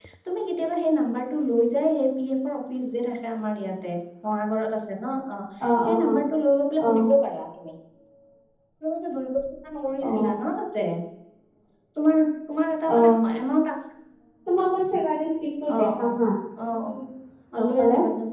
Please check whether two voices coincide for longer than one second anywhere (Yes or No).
No